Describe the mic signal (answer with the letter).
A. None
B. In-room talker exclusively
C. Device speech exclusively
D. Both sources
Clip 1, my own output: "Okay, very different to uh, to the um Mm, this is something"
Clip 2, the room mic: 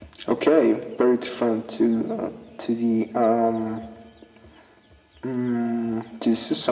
C